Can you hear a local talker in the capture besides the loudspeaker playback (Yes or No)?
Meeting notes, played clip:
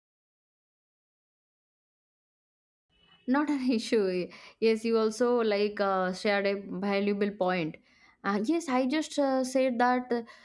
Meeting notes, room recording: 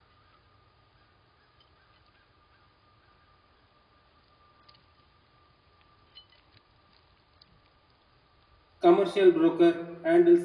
Yes